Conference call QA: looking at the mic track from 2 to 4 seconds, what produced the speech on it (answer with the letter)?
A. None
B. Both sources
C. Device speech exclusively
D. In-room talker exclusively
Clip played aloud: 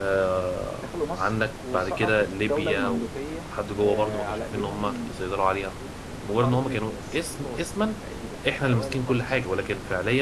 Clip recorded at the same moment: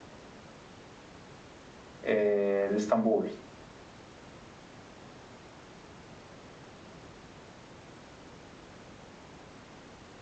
D